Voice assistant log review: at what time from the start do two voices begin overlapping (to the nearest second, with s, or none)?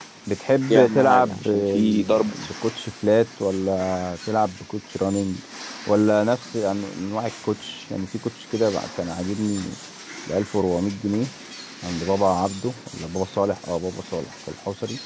1 s